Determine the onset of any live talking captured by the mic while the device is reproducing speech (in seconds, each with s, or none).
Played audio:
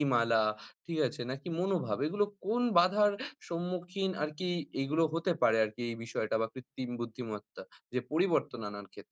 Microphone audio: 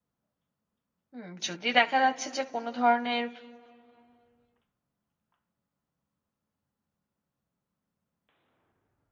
1.1 s